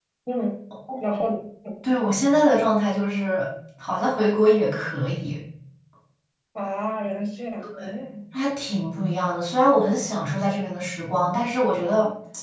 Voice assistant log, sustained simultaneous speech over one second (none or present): none